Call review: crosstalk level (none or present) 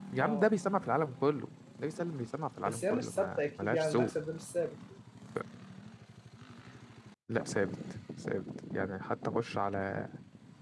present